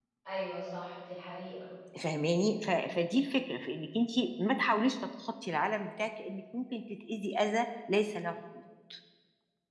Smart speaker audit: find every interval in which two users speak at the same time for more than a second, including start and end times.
none

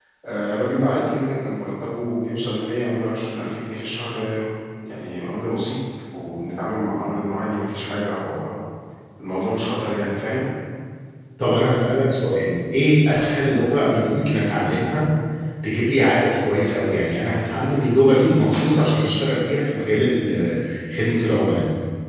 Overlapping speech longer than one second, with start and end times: none

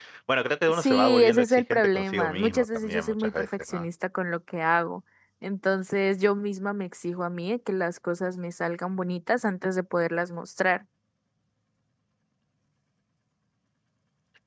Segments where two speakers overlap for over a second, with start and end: 0.7-3.8

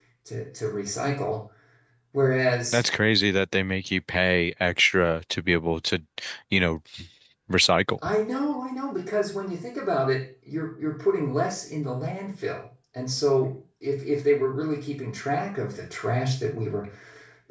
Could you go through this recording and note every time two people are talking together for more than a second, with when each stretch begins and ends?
none

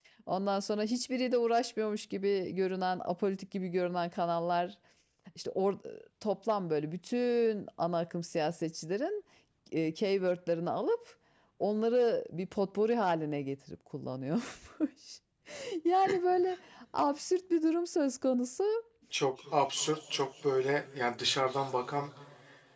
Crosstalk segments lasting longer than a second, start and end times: none

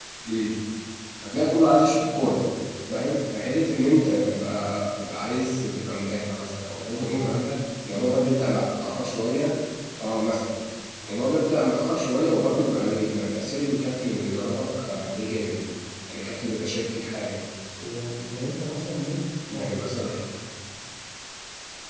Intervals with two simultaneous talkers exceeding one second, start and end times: none

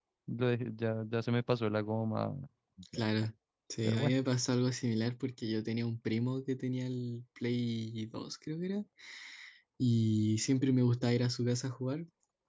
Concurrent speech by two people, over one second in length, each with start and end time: none

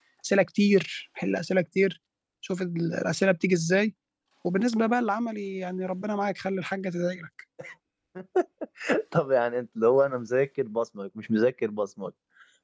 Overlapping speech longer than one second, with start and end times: none

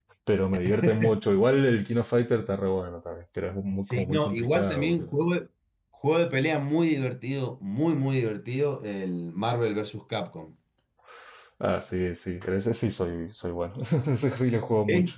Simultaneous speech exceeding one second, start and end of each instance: 3.9-5.1

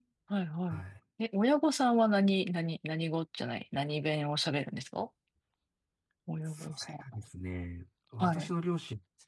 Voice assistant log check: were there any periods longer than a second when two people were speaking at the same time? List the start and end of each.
none

